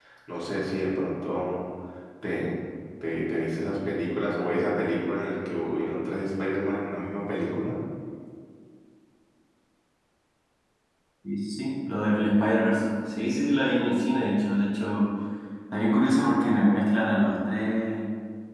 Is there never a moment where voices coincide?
Yes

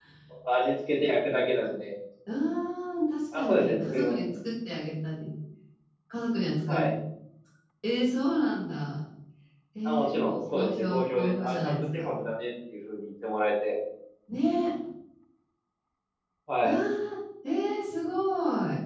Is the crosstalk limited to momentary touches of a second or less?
No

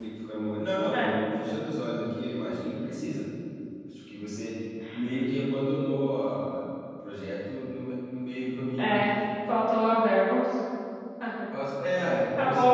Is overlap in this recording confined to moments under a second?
Yes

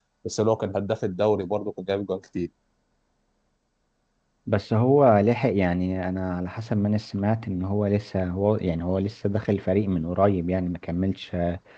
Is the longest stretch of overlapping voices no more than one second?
Yes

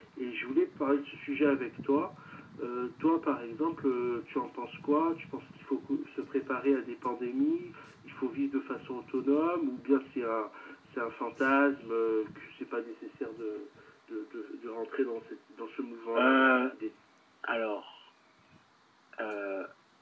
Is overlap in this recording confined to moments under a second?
Yes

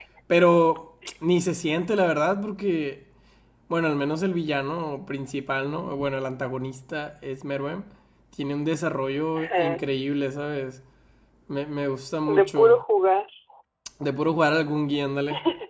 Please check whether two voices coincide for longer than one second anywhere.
No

